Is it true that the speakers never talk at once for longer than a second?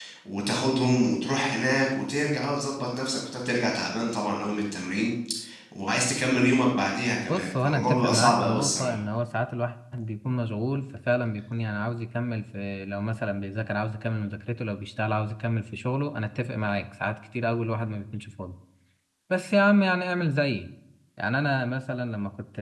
No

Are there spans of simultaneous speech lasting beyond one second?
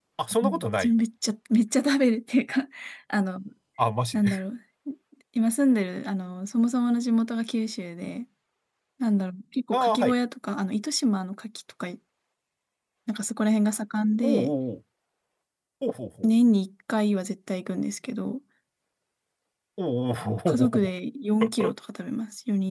No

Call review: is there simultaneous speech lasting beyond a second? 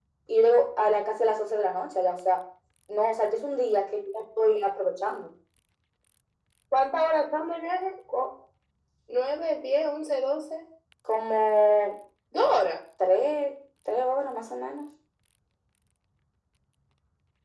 No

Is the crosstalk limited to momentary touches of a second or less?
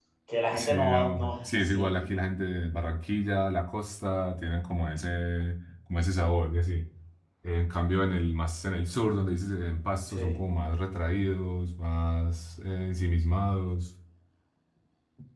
No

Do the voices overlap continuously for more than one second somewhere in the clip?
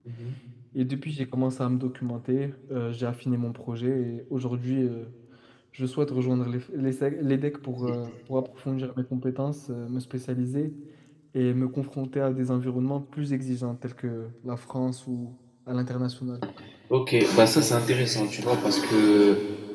No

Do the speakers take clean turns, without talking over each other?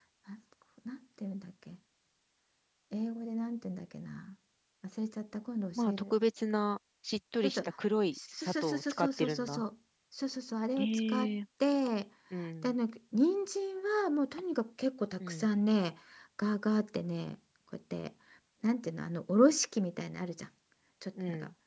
No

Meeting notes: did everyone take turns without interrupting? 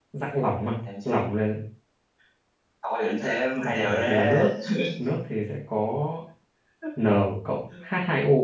No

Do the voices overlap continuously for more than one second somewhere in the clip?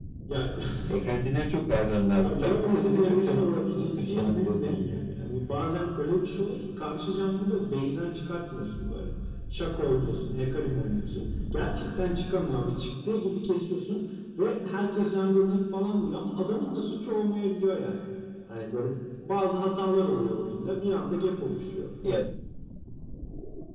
Yes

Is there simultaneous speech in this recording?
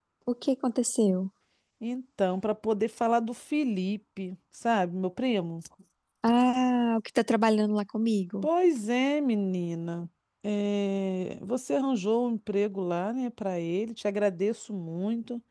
No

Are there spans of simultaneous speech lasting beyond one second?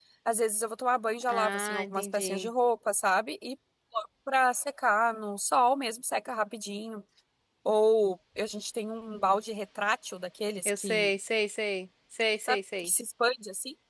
Yes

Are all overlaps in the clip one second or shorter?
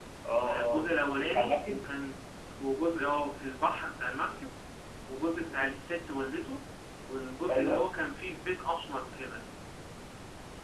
No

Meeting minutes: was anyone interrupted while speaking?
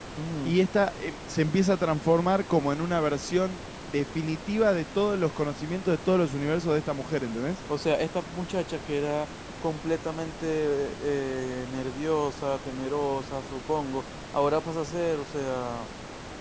No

